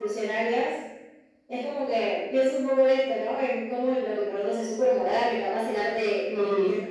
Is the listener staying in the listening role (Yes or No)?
Yes